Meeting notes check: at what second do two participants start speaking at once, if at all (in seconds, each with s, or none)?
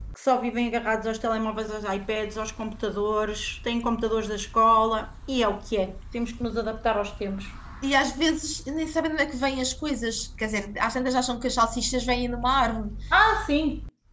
none